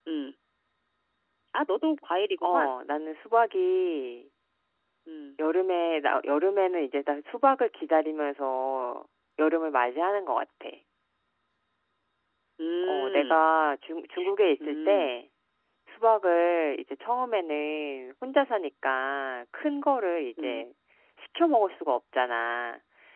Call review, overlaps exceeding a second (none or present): none